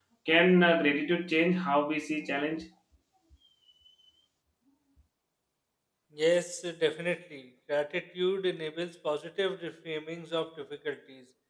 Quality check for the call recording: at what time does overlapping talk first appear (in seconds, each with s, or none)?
none